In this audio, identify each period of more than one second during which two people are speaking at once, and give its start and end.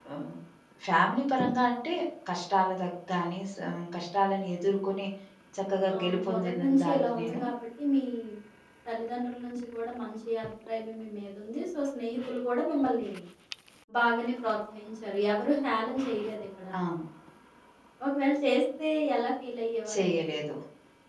6.0-7.4

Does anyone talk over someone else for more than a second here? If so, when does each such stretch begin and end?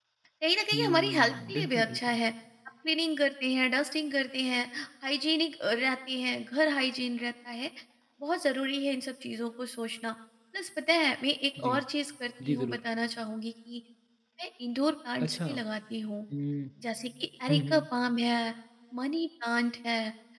0.7-2.2

